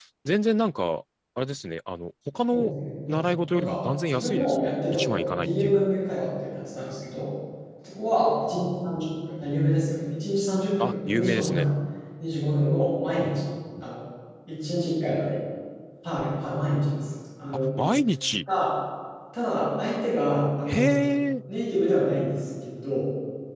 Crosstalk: present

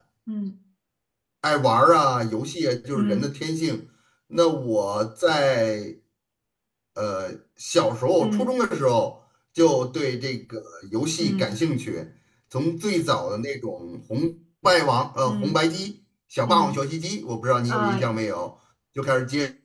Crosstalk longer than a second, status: none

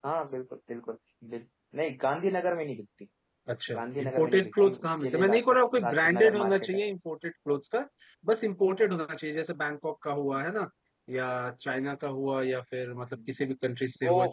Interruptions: present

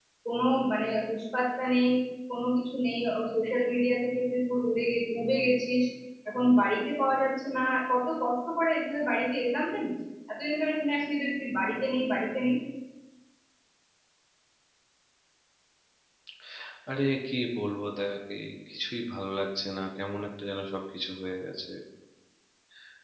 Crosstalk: none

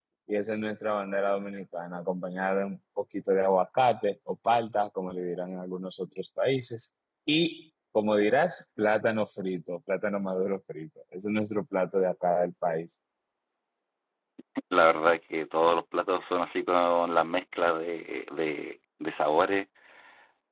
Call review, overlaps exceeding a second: none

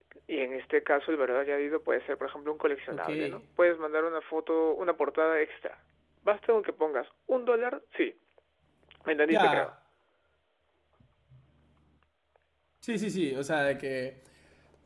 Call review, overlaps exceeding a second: none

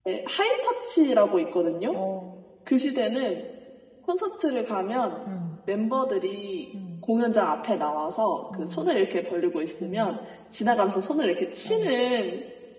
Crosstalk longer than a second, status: none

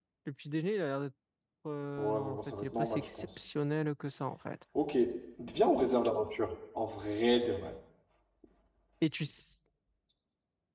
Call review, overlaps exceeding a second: present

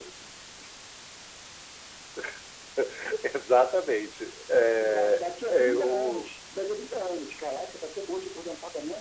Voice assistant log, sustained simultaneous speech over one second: present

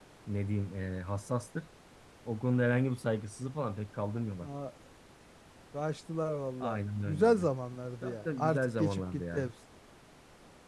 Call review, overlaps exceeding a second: present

